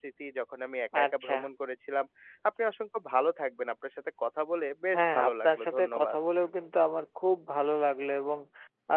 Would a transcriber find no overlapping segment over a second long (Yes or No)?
No